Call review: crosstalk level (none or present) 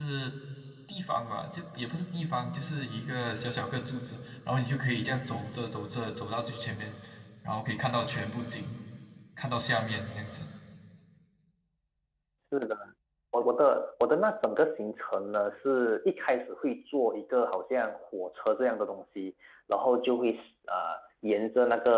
none